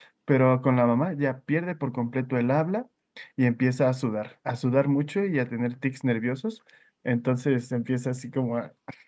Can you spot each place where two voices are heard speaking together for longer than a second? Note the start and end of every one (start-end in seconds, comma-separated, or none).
none